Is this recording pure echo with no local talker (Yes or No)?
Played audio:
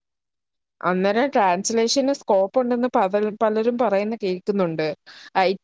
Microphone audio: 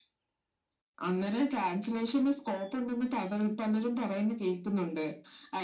Yes